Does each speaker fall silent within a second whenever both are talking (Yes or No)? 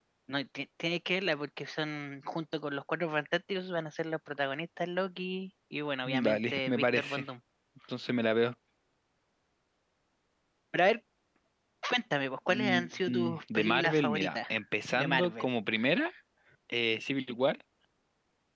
No